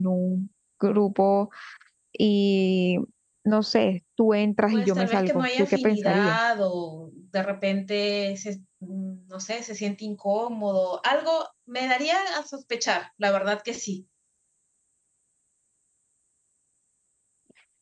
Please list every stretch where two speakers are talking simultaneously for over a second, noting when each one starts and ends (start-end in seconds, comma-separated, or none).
4.7-6.4